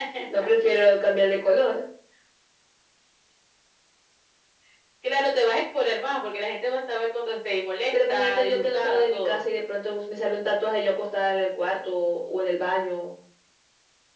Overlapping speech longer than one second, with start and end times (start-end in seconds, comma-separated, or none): 7.9-9.4